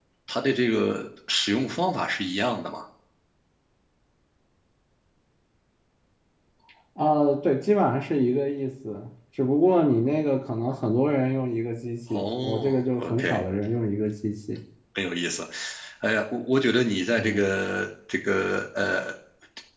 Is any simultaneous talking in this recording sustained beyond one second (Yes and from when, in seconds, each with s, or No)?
Yes, from 12.1 s